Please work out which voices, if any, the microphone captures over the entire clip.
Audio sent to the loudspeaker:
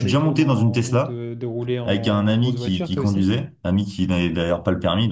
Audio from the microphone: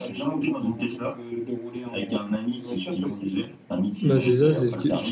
both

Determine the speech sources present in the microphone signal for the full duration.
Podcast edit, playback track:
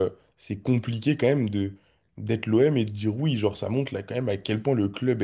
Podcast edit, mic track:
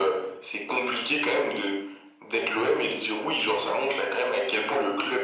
echo only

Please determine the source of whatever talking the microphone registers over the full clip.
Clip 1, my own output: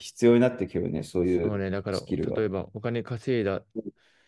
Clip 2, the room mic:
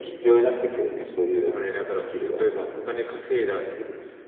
echo only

